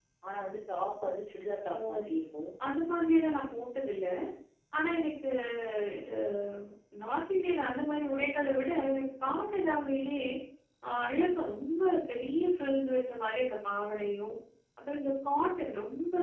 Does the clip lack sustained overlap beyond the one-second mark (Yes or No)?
Yes